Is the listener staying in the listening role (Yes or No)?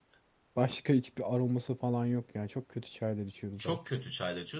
No